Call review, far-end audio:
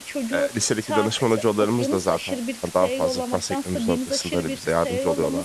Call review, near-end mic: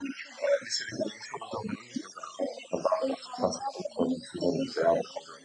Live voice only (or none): none